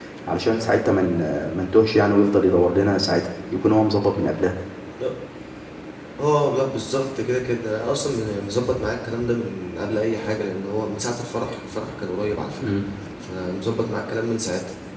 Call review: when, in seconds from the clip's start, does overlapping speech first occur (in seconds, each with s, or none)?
none